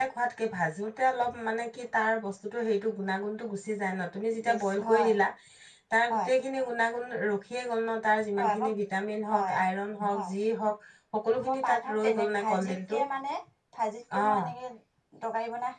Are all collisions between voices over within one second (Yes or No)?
No